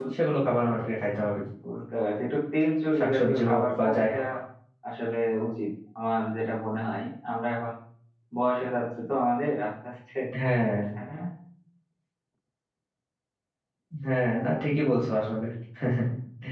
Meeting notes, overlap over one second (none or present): present